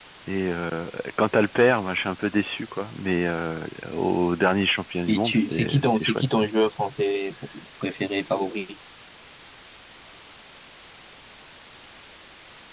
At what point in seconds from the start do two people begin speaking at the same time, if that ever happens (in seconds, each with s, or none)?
5.1 s